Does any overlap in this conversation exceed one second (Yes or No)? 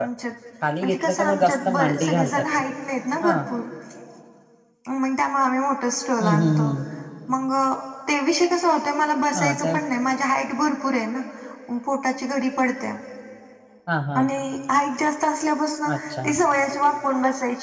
Yes